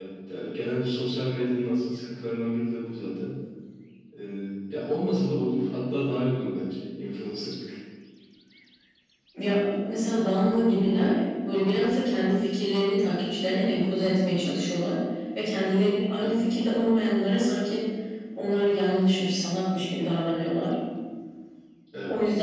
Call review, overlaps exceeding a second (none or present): none